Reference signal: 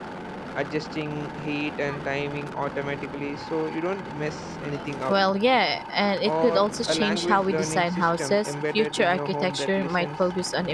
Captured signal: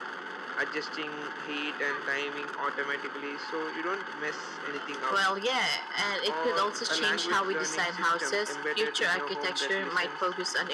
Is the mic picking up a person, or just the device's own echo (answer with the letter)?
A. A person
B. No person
B